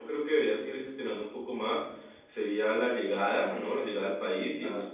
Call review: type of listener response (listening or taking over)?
listening